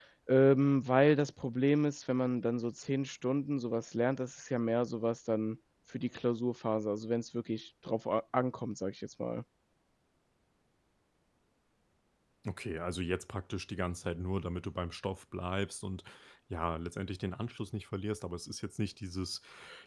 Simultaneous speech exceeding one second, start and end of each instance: none

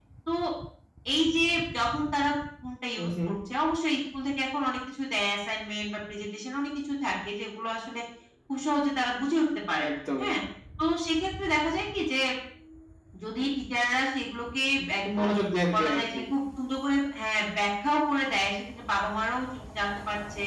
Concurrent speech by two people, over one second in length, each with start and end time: none

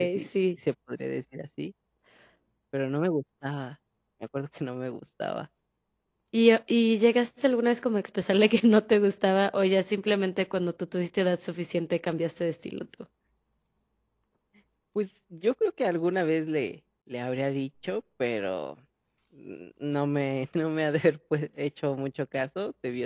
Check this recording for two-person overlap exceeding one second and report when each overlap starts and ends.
none

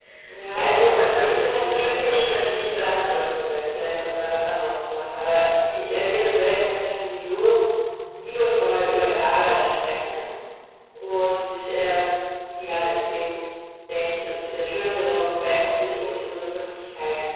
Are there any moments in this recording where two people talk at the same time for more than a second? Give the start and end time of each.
0.5-3.2

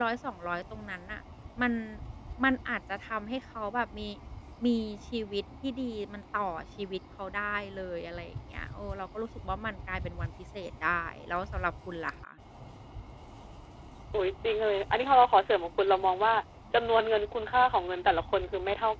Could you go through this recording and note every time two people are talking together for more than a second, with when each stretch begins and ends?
none

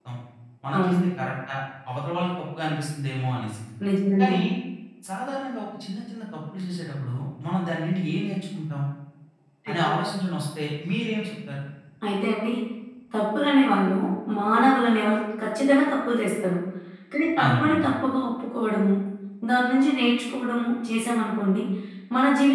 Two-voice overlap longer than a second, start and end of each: none

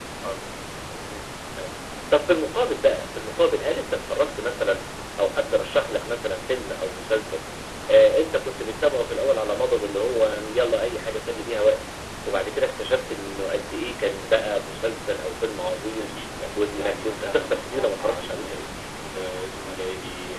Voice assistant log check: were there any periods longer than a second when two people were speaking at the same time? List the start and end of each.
16.6-18.4

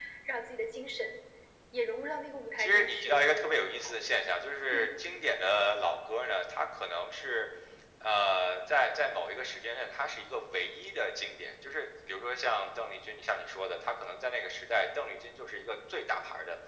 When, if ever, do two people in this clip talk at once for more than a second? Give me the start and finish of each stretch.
2.6-4.0

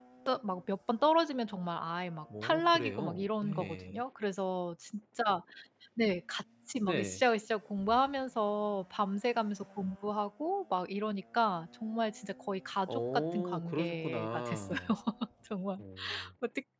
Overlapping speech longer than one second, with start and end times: 2.4-4.0, 12.9-14.8

